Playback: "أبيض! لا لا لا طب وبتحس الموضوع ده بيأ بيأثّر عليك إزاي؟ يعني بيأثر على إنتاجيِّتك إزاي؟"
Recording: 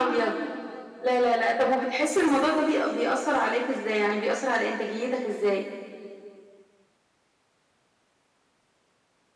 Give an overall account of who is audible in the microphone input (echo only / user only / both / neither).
echo only